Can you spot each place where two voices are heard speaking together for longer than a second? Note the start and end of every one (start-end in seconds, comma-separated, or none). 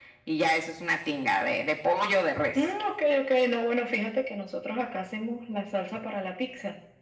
none